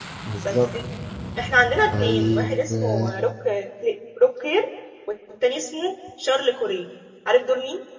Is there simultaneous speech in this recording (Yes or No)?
Yes